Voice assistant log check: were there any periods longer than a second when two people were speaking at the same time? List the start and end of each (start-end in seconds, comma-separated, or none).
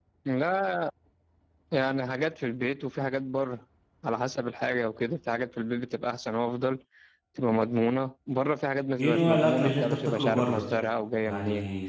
9.0-10.7